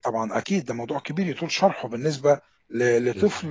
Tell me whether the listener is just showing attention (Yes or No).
Yes